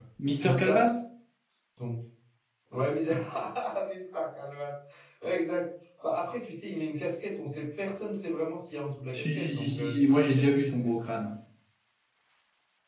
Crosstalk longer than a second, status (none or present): present